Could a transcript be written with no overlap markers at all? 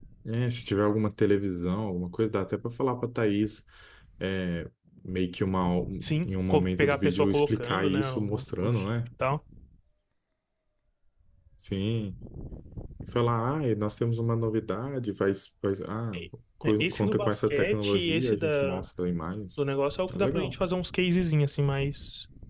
No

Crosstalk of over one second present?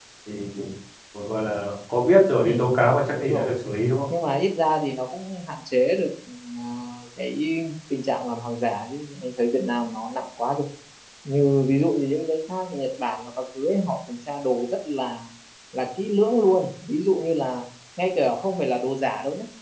No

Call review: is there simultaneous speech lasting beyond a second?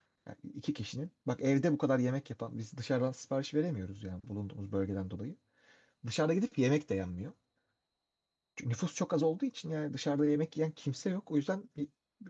No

